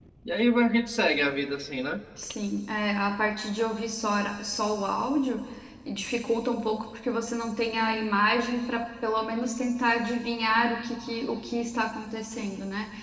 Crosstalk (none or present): none